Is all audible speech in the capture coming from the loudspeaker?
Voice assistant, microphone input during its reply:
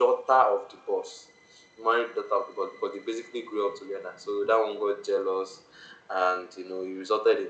Yes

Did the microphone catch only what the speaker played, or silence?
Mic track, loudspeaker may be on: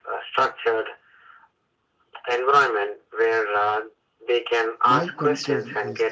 No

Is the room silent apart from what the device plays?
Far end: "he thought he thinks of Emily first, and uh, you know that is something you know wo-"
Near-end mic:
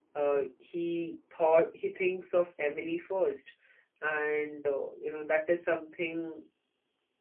Yes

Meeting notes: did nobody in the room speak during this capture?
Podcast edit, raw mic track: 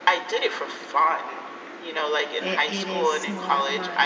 No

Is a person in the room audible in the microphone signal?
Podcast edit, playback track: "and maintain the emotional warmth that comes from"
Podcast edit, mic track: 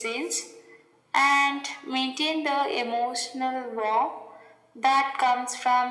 No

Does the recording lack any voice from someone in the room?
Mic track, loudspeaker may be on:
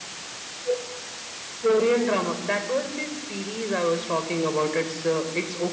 Yes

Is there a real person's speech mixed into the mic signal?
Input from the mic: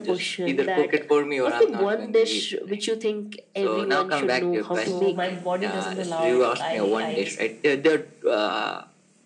Yes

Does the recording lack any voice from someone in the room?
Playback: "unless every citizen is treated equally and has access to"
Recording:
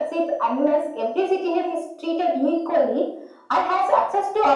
Yes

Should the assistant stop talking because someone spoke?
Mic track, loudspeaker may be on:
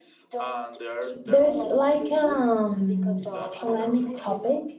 Yes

